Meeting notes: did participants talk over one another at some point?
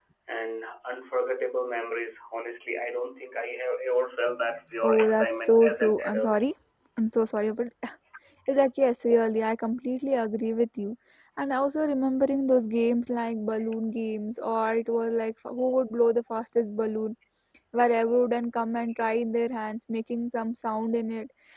Yes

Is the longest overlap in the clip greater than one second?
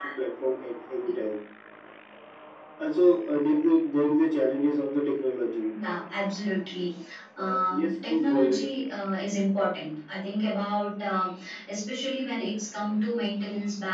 Yes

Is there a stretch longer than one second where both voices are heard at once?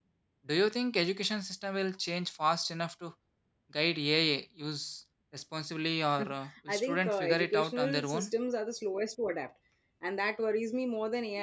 Yes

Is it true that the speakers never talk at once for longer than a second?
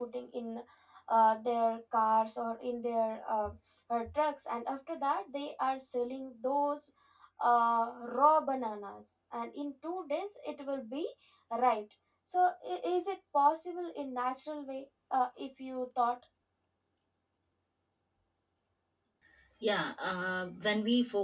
Yes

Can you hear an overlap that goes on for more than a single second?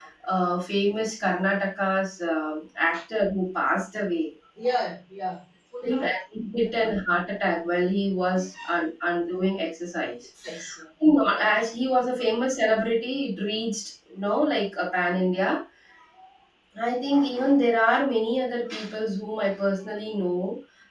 No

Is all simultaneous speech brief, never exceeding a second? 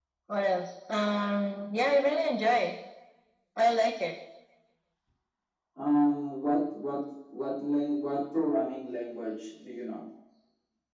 Yes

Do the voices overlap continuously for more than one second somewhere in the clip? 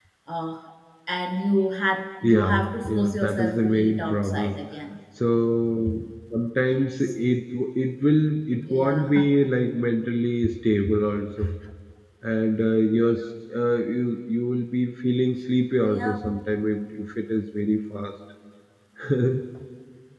Yes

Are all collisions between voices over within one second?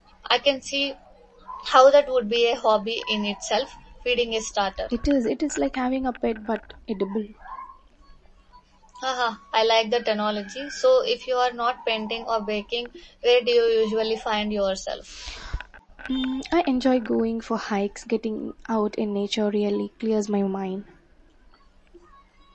Yes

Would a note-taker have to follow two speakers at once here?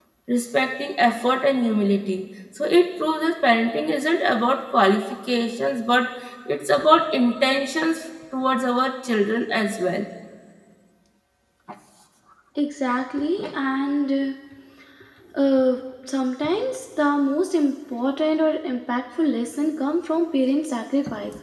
No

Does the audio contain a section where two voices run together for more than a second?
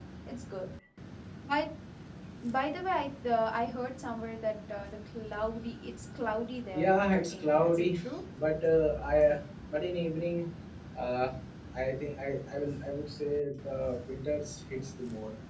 Yes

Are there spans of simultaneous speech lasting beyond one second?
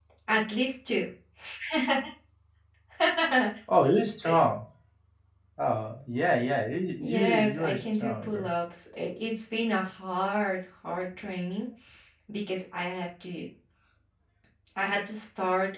Yes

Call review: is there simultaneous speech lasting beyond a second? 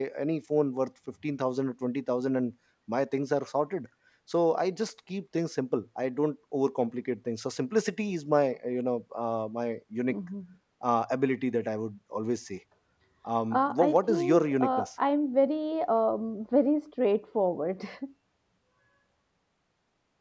Yes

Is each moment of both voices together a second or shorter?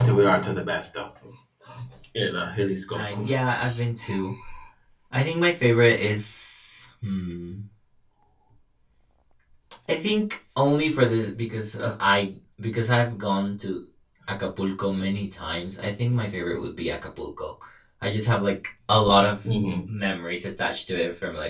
Yes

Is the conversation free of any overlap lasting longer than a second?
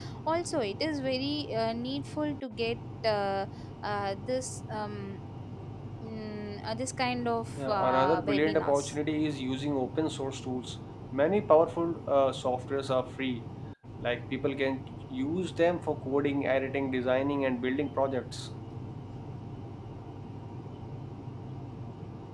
No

